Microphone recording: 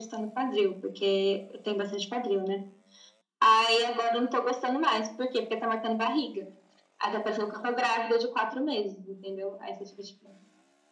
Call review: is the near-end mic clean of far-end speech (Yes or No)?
No